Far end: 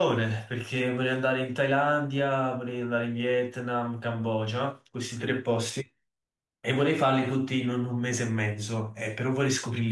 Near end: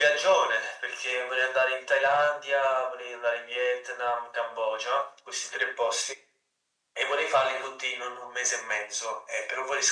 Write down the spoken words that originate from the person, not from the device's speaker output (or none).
none